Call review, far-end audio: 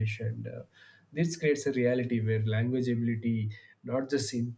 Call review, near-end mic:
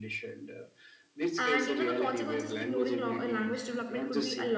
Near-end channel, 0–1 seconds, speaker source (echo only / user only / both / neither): echo only